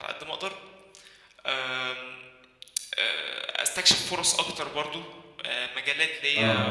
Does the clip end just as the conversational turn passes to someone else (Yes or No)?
No